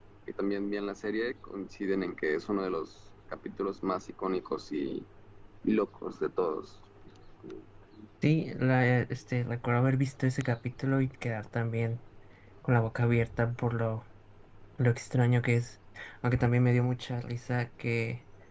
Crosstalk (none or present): none